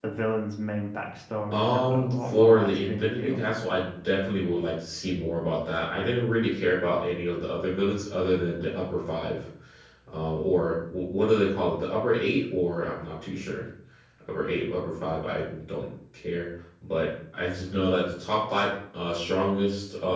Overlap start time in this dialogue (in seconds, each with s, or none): 1.5 s